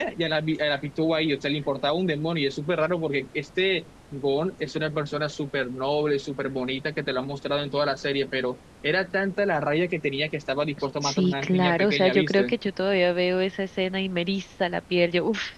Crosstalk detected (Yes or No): Yes